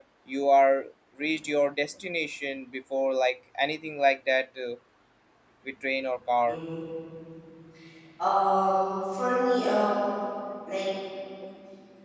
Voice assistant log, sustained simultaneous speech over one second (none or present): none